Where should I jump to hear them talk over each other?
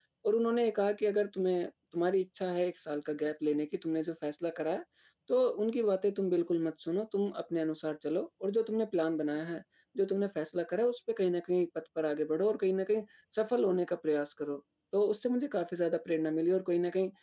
none

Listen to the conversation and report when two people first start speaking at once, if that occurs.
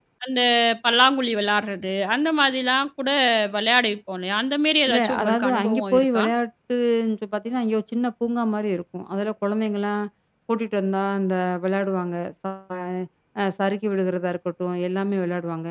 4.9 s

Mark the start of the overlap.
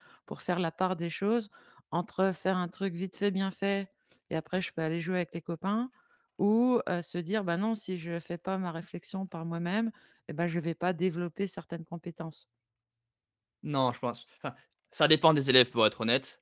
none

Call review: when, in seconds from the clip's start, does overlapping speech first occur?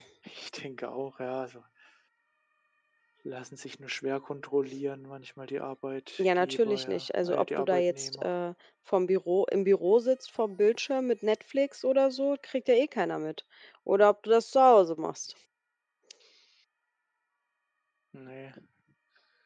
6.2 s

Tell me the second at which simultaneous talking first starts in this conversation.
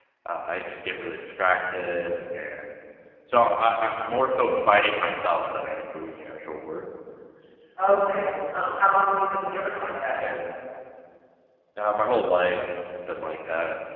none

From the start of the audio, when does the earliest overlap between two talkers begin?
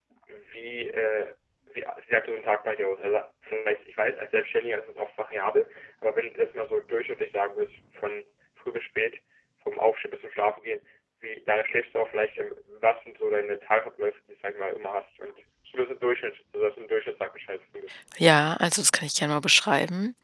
none

